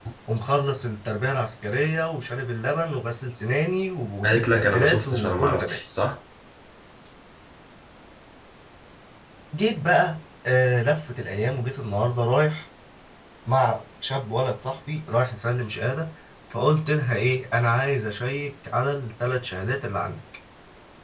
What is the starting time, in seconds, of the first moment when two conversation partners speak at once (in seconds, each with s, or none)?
4.2 s